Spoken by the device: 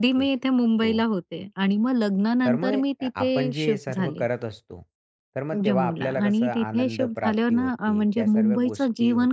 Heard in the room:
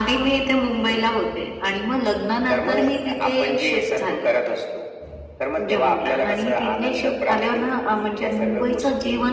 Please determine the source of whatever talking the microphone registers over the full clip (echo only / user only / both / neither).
echo only